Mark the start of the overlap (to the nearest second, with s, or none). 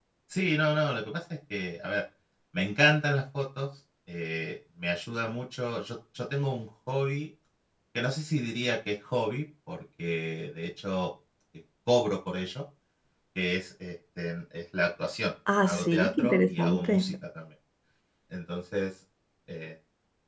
15 s